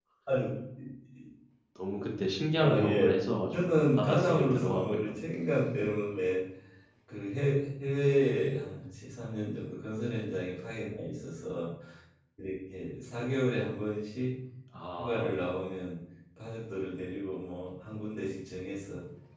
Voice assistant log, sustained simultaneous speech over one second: present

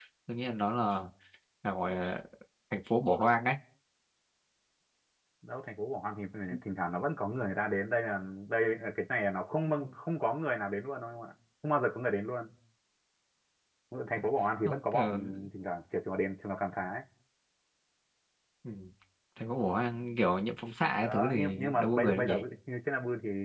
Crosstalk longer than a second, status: present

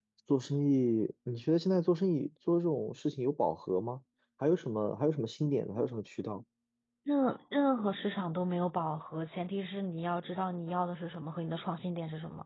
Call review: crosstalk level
none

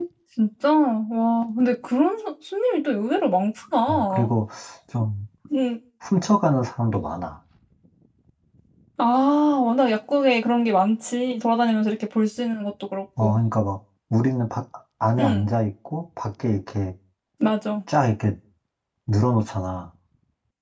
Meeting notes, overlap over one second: none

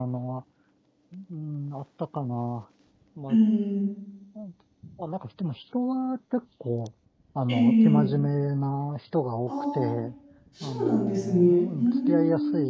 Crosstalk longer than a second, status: present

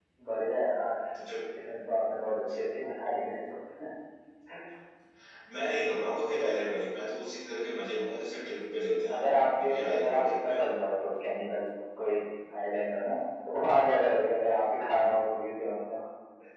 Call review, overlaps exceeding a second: present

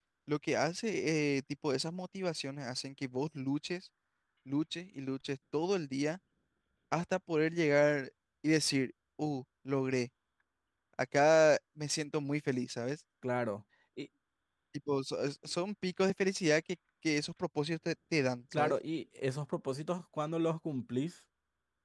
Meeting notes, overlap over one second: none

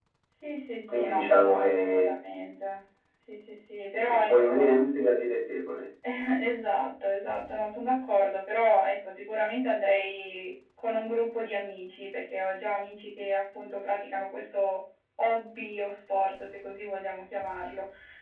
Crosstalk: present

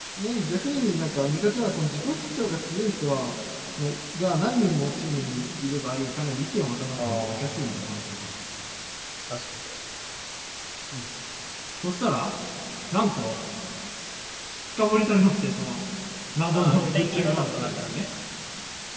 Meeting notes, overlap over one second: present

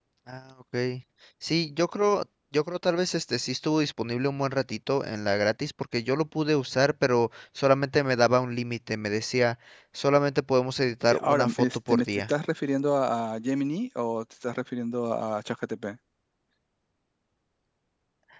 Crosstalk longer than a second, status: present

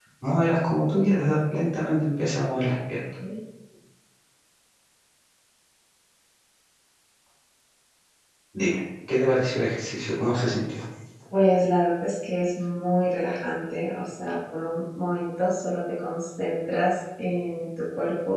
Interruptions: none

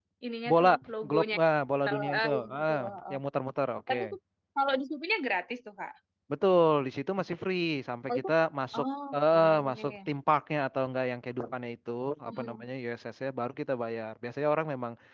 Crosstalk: present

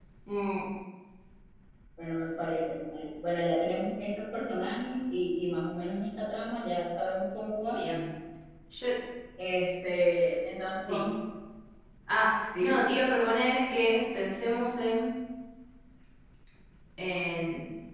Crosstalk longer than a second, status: none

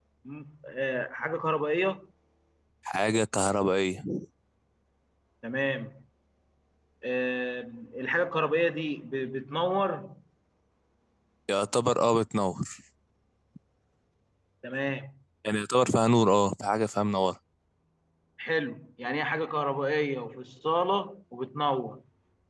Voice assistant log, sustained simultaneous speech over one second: none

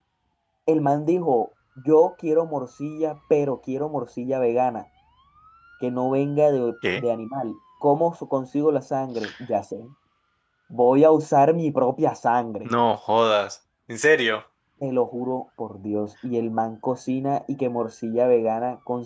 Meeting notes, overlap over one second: none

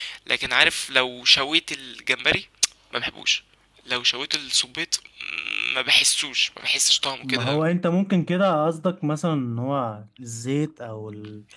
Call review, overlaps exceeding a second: none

